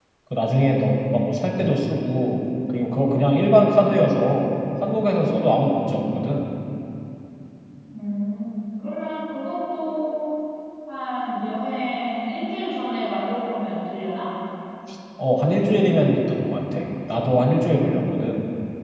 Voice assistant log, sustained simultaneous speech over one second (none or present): none